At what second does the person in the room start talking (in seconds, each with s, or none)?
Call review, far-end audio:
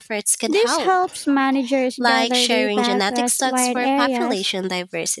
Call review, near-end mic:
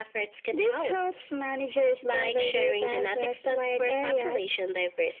none